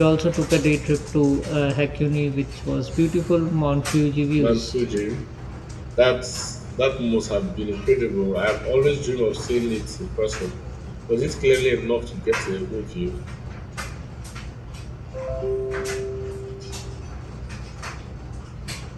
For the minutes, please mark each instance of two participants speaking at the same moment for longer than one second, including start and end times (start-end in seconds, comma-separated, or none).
none